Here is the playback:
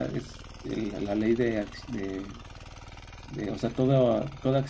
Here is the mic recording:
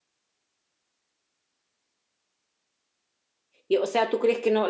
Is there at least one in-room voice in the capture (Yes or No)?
Yes